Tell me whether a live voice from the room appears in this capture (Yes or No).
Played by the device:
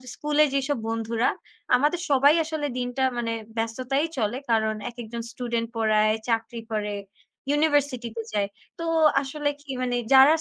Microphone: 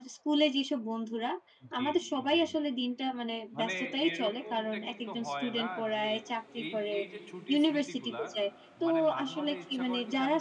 Yes